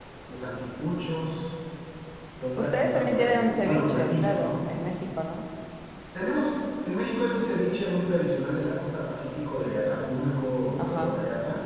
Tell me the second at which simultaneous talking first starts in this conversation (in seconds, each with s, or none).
2.6 s